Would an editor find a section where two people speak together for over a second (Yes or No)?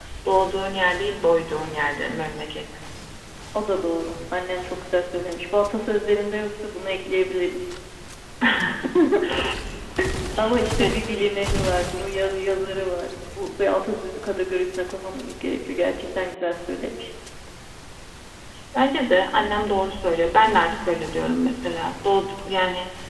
No